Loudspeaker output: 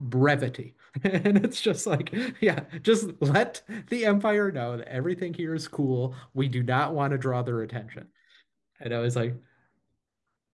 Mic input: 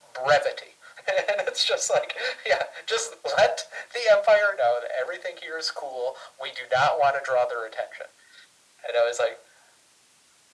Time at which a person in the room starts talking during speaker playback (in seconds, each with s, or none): none